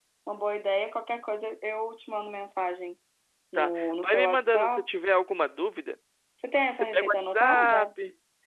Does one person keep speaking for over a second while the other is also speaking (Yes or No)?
Yes